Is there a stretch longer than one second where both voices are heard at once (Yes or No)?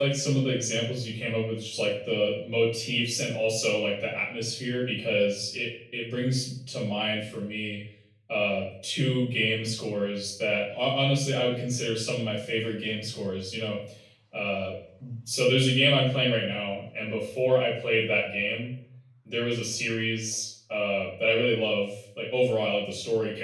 No